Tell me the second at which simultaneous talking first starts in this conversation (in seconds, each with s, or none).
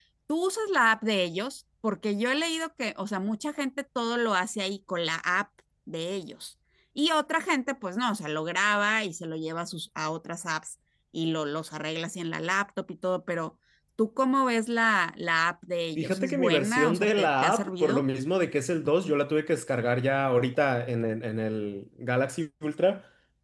16.0 s